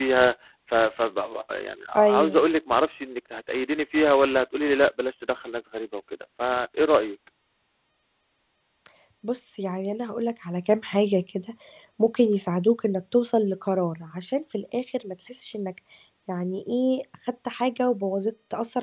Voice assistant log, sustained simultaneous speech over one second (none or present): none